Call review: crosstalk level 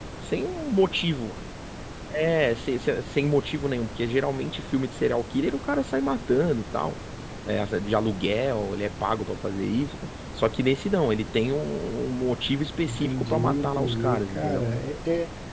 present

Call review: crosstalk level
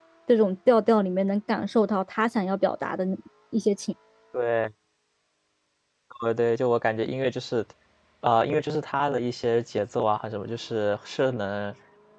none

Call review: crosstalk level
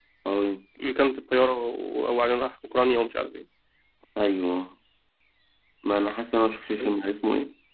none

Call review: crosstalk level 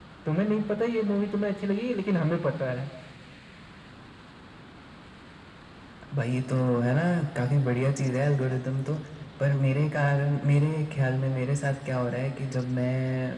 none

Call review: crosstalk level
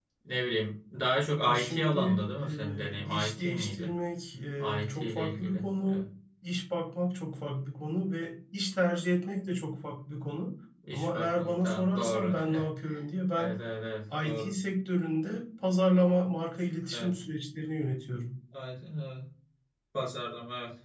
present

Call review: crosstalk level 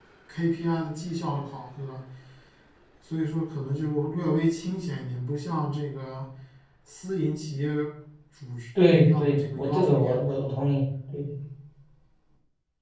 present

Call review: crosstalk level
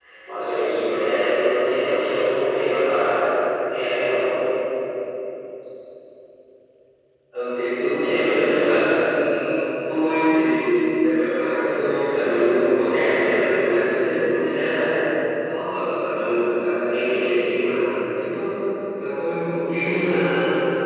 none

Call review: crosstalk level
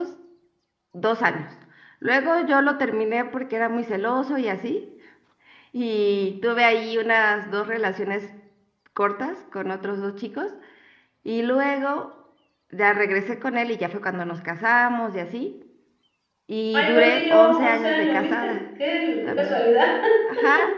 present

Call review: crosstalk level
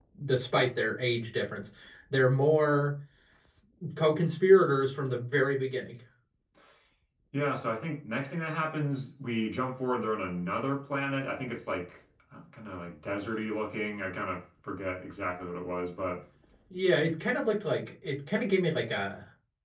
none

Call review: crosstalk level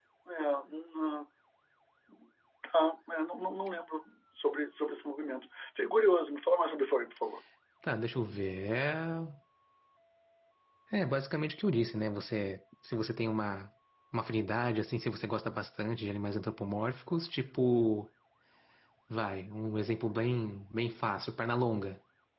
none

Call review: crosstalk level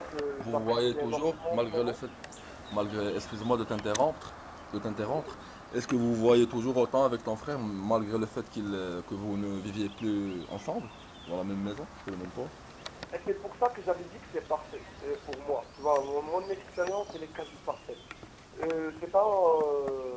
present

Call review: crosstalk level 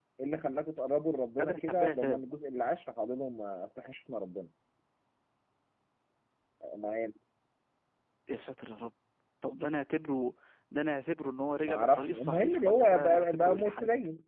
present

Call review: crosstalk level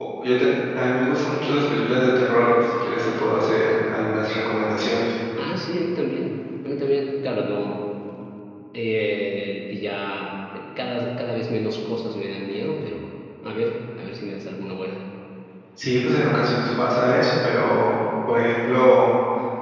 none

